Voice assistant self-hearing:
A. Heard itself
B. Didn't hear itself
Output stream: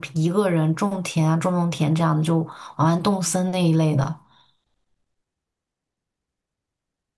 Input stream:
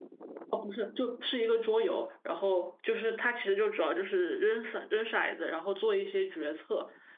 B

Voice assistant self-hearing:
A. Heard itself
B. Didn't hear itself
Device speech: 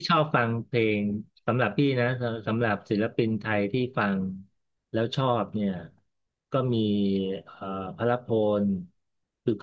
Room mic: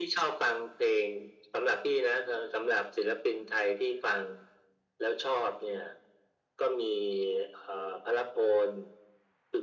A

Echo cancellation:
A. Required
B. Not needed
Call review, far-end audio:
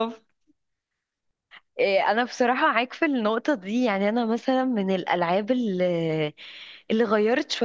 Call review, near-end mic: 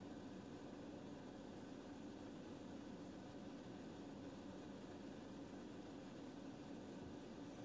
B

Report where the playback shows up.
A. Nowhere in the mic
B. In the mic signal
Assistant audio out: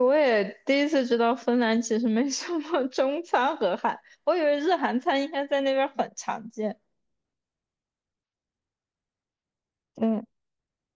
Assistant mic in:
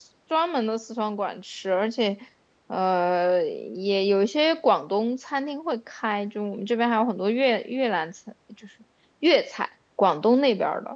A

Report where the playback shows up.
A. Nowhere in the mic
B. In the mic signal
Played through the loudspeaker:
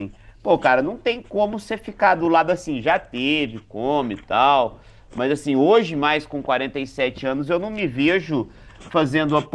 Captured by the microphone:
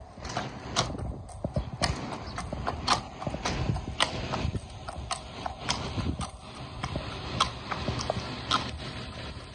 A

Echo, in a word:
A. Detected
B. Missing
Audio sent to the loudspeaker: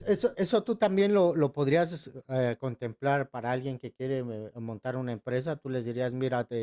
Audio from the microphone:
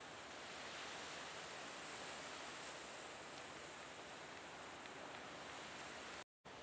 B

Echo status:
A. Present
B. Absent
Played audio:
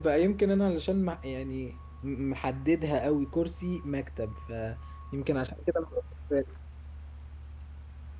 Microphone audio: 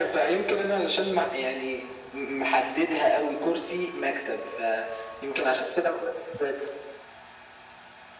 A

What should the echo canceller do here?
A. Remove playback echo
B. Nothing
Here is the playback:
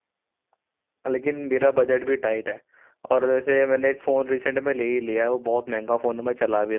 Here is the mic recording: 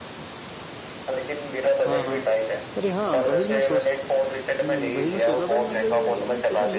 A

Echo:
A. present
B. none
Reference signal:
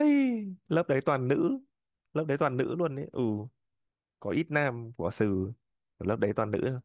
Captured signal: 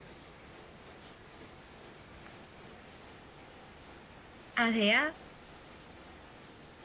B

